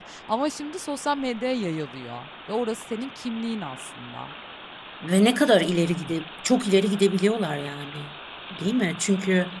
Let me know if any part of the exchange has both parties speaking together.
No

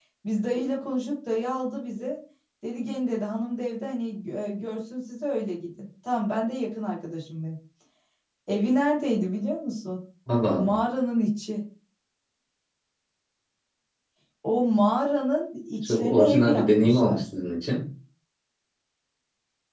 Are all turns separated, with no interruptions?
No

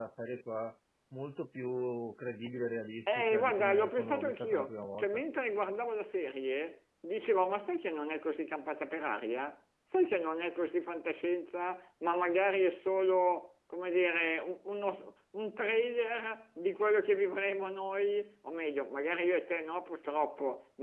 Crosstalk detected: Yes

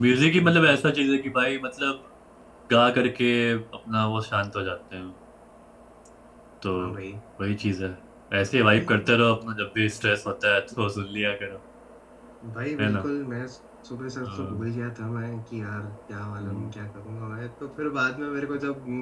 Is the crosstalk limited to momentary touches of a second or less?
Yes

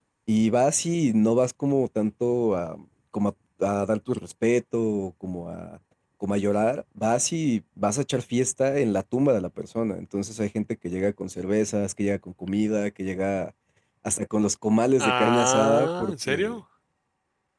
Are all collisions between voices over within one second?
No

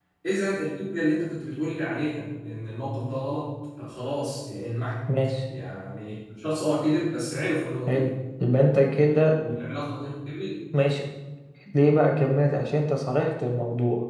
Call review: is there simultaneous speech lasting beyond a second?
No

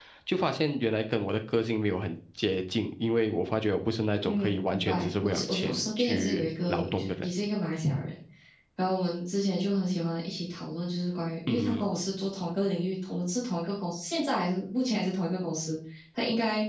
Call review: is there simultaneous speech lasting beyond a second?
Yes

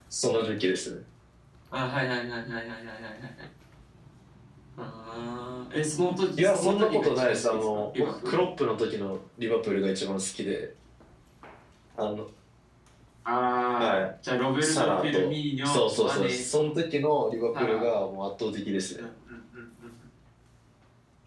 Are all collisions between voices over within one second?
No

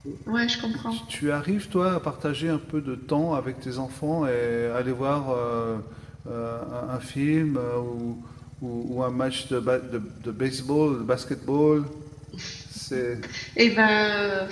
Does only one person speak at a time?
Yes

